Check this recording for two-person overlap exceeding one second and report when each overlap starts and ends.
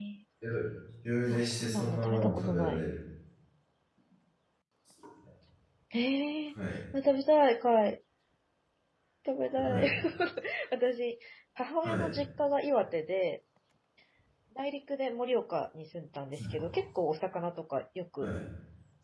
1.3-2.8

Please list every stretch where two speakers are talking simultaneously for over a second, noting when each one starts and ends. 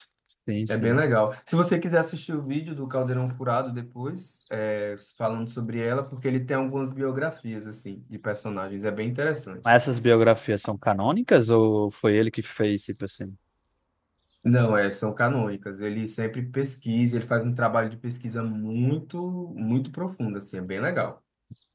none

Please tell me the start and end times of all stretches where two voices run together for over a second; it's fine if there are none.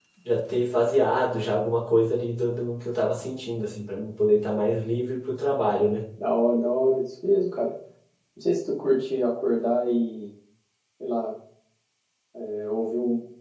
none

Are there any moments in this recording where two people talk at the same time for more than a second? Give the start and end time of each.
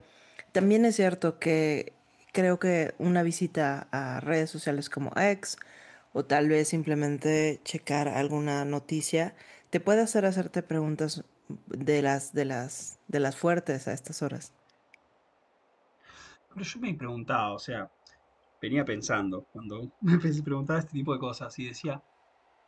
none

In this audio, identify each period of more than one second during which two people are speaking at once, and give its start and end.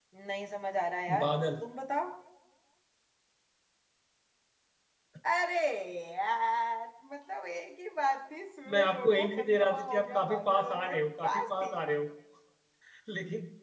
8.7-11.7

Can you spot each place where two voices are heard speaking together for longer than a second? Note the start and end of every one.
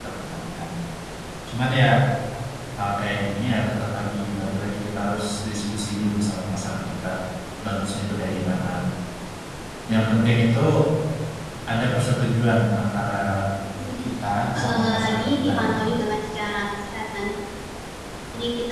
14.6-15.8

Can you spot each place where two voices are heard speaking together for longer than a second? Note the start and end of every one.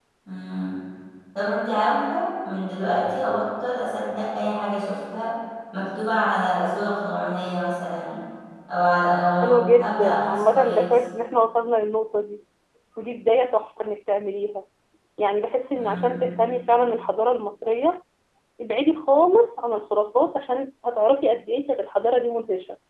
9.4-11.0

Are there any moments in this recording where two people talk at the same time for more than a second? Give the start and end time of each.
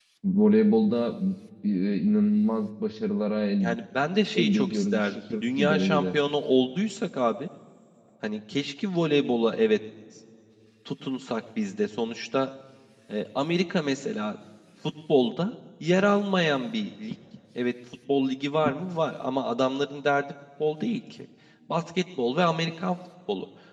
4.3-6.1

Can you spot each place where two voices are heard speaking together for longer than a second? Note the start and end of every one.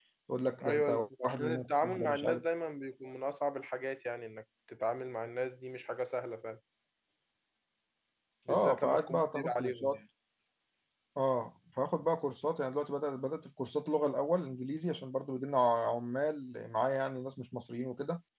0.6-2.4, 8.5-10.0

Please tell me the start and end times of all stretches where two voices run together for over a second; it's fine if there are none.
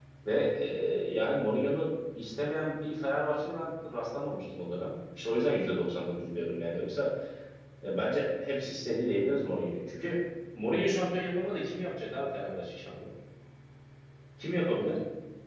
none

